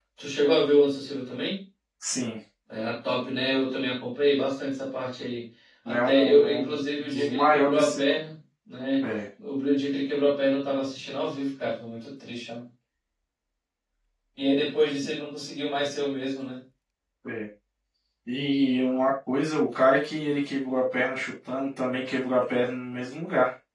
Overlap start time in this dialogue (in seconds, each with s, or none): 5.8 s